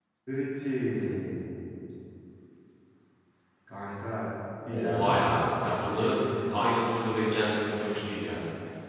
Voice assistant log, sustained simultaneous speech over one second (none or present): present